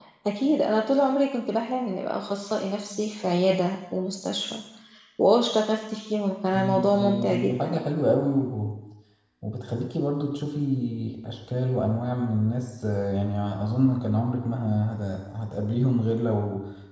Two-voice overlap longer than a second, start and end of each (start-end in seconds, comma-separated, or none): 6.5-7.8